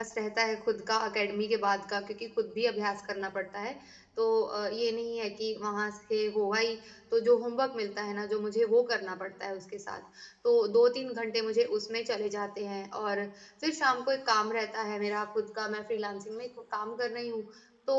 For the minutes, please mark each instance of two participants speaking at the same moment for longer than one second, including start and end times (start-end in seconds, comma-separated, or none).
none